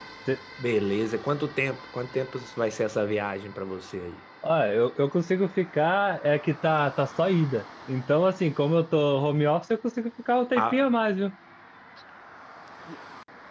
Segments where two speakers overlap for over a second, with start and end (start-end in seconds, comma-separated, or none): none